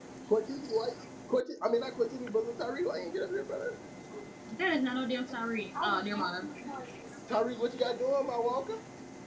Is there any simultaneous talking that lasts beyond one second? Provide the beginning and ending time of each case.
none

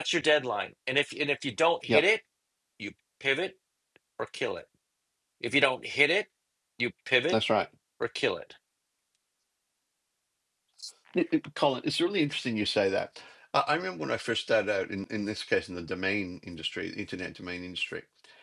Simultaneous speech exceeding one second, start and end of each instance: none

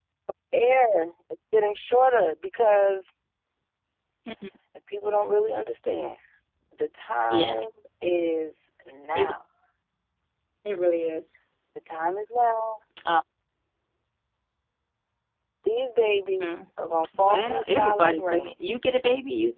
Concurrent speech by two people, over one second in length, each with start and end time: 17.2-18.5

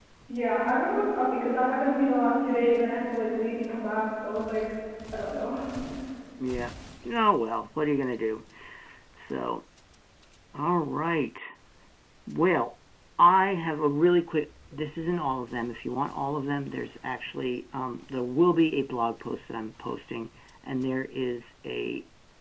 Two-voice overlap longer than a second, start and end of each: none

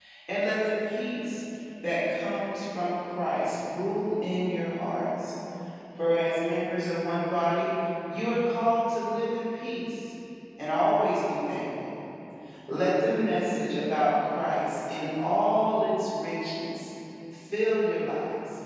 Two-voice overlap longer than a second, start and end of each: none

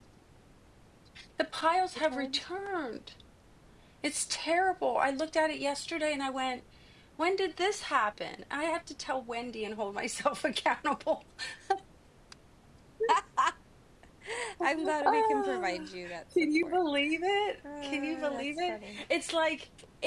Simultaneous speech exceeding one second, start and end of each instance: 14.6-15.9, 17.8-19.0

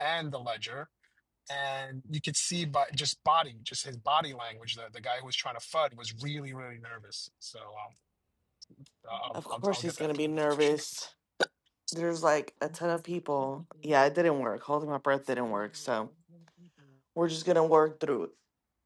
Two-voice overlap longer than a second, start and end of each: 9.3-10.7

